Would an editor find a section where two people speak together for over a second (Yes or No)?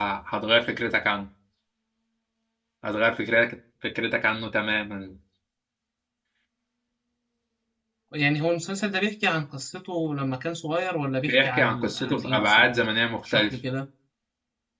Yes